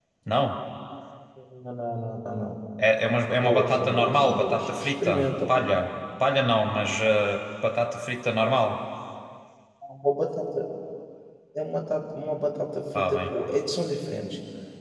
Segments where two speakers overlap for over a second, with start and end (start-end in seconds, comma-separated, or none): 3.3-5.6